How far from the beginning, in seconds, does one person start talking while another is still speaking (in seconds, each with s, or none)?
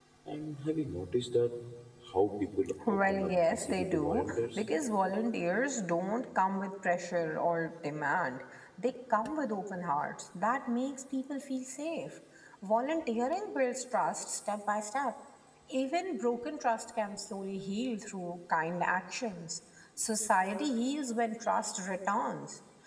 2.9 s